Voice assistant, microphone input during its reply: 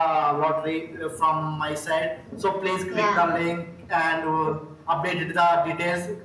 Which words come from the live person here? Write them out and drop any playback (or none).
yeah